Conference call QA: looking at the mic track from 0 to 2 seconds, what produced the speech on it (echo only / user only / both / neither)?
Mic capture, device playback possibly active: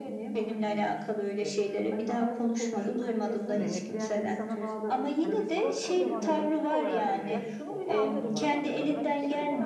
echo only